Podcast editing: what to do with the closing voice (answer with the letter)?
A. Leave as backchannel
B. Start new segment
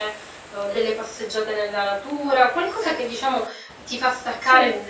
A